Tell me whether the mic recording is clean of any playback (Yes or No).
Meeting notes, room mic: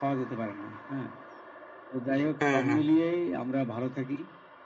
No